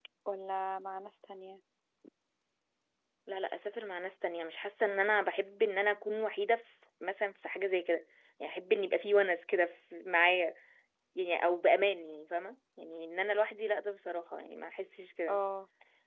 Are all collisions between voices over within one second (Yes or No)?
Yes